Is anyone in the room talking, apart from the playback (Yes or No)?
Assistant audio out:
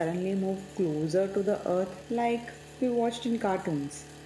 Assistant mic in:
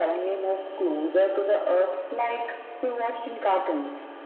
No